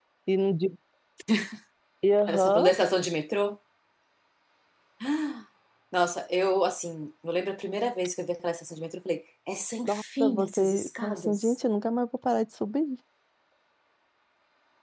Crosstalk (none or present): present